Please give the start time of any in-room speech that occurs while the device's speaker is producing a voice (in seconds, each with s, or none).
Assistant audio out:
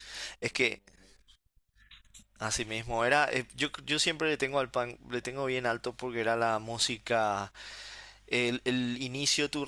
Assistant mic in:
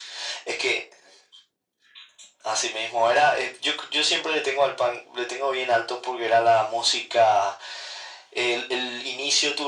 none